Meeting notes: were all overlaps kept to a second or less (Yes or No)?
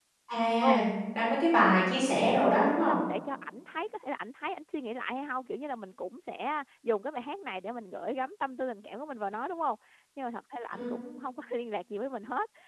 Yes